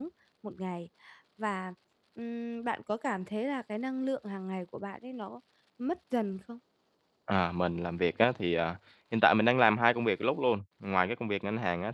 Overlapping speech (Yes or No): No